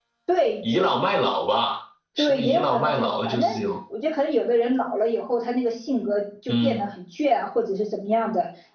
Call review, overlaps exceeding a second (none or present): present